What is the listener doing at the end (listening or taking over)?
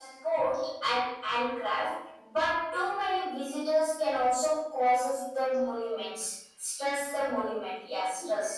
taking over